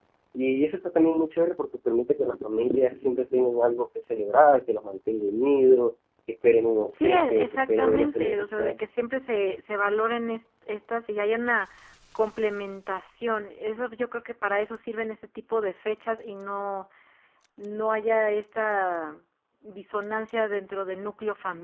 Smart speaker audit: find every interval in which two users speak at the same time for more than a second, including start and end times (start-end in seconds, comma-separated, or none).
6.9-8.7